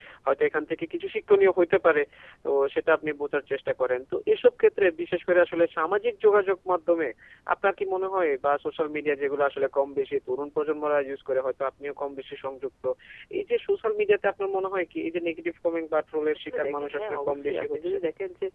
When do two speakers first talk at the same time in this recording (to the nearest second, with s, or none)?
16 s